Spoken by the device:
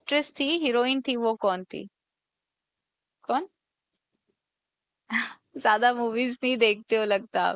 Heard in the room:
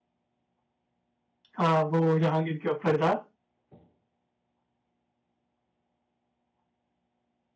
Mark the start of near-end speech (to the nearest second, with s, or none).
2 s